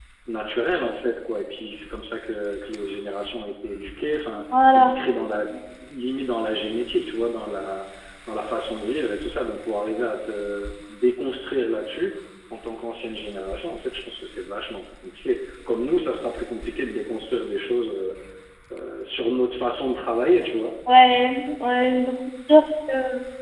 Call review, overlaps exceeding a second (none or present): none